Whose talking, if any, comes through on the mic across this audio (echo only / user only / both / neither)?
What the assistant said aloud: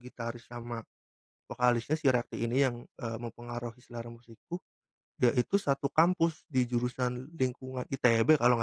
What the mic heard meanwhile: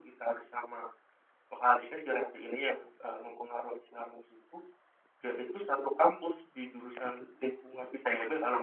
echo only